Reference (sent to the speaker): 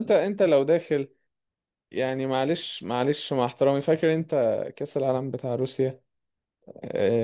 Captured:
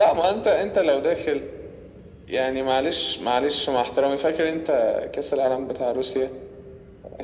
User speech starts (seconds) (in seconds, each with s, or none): none